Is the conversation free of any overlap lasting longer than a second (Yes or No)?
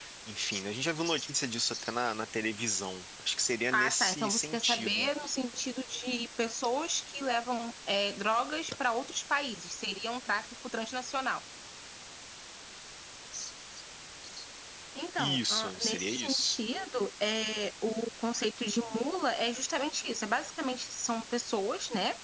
No